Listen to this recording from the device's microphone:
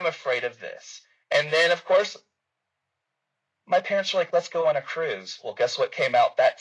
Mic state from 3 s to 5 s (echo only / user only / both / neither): echo only